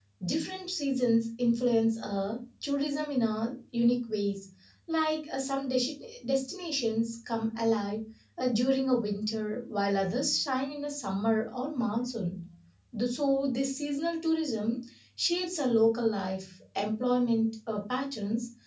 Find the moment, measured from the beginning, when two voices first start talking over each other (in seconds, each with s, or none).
none